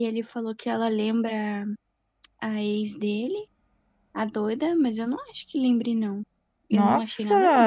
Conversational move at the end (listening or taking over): taking over